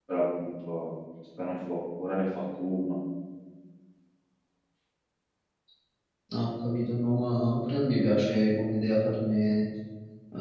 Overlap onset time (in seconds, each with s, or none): none